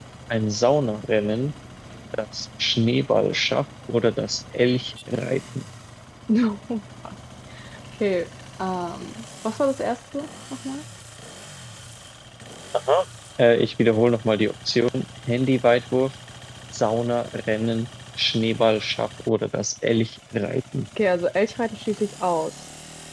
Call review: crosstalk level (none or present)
none